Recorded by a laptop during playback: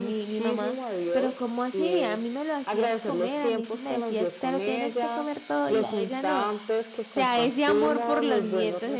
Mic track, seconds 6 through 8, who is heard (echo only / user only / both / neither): both